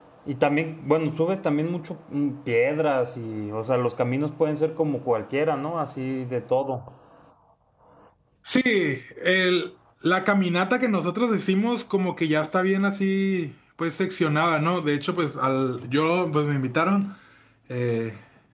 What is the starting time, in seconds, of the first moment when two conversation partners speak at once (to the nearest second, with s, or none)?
none